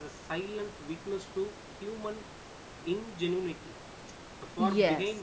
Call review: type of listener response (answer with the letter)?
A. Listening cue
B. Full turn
A